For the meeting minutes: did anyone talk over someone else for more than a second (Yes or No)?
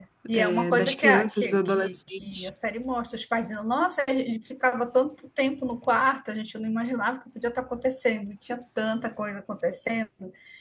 Yes